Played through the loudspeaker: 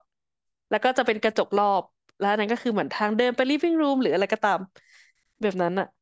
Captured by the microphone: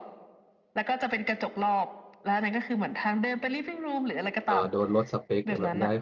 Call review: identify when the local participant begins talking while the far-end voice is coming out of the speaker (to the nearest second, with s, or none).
4 s